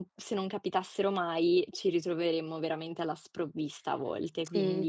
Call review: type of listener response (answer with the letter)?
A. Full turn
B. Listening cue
A